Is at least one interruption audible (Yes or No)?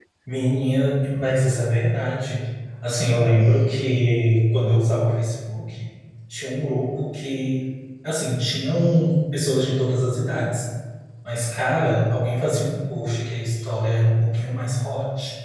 No